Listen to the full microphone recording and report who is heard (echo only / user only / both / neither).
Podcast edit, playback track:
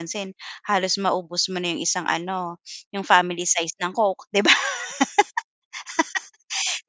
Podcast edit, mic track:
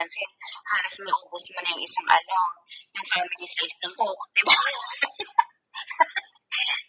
echo only